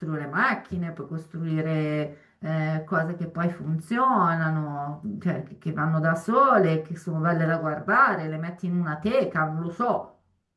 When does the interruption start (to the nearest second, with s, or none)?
none